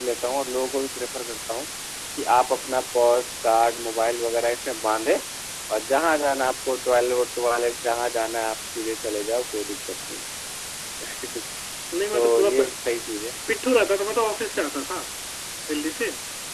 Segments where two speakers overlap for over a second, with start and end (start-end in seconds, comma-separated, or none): none